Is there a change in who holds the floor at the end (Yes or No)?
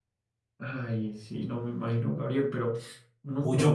Yes